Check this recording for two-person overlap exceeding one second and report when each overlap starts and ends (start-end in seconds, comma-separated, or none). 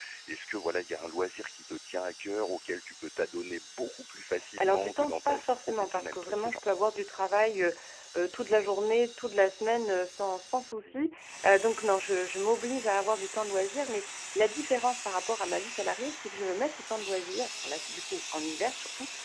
4.6-6.6